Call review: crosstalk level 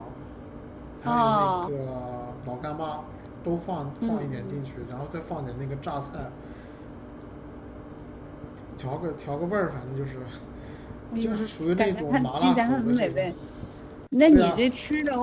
present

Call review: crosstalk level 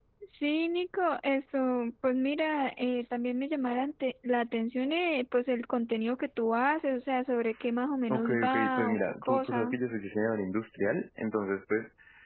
present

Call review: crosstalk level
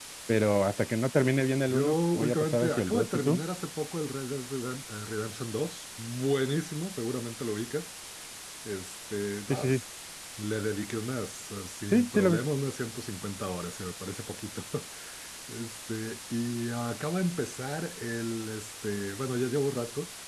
present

